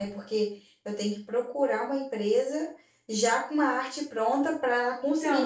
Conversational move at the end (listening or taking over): taking over